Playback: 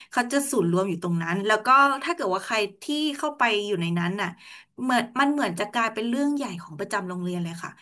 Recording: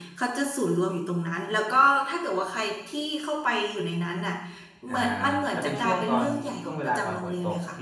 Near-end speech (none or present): present